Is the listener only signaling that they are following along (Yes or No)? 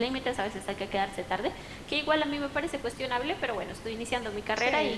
Yes